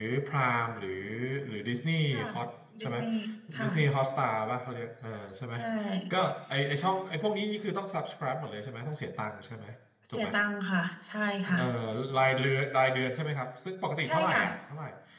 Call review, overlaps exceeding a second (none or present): none